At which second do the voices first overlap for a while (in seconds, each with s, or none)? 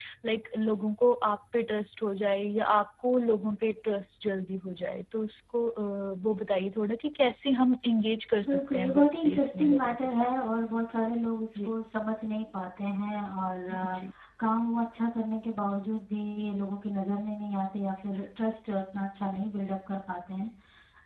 8.5 s